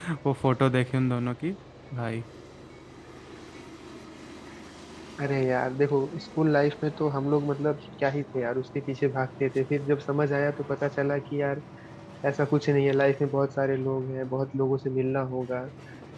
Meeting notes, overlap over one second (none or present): none